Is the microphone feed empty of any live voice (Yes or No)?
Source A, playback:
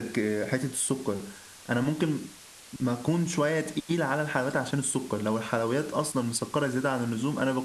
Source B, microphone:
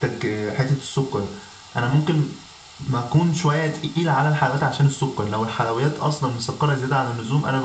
Yes